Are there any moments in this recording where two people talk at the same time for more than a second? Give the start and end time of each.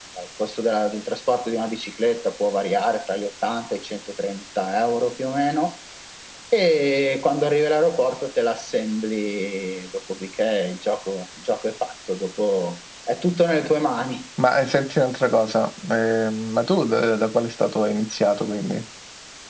none

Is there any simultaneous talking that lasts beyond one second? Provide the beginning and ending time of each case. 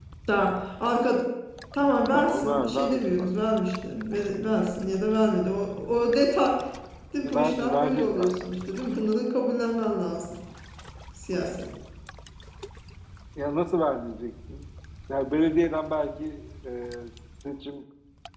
2.1-3.5, 7.2-8.5

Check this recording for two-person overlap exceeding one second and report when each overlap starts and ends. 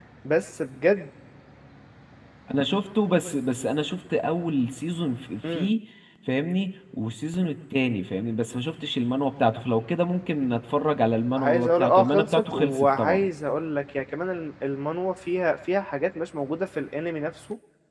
11.4-13.2

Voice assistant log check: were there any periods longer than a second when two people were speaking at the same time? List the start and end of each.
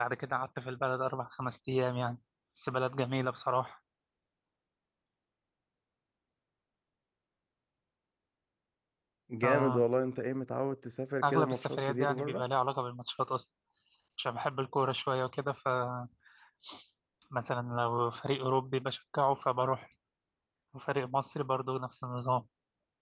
11.2-12.4

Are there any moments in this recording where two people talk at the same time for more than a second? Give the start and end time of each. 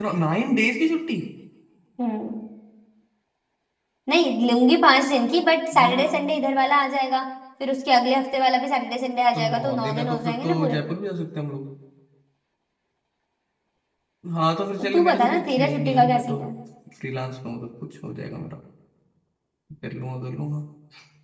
9.3-10.8, 14.8-16.4

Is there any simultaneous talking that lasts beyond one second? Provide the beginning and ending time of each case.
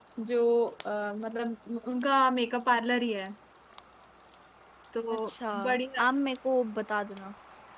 none

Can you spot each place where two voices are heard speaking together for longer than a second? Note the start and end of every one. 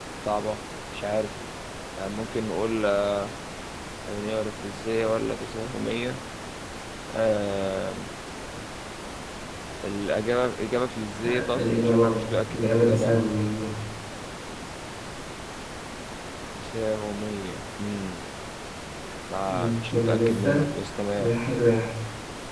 11.2-13.3, 19.5-20.7

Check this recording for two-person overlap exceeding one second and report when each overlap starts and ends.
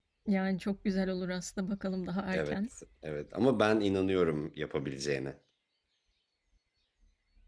none

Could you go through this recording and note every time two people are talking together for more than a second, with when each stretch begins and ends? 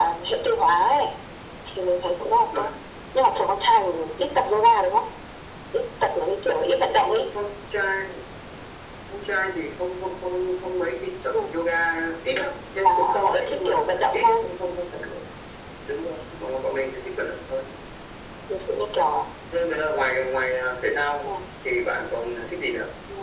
12.8-14.4

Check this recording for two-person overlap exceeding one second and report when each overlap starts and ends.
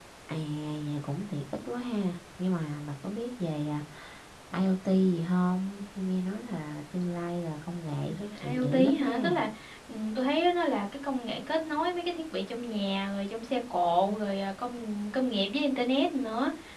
8.1-9.4

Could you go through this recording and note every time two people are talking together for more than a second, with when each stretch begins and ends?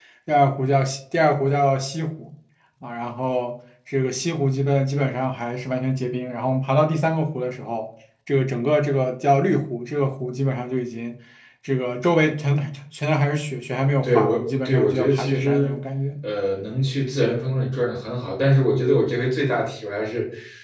14.0-15.8

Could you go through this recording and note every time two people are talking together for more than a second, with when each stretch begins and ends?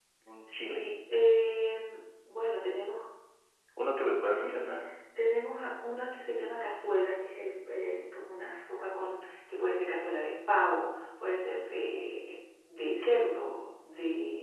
none

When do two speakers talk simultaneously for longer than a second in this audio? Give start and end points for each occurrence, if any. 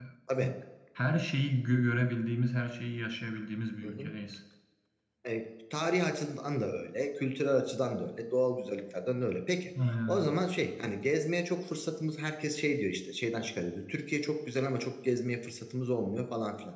none

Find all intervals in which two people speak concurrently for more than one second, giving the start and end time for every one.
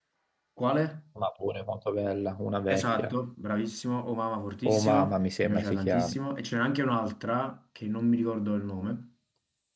4.7-6.2

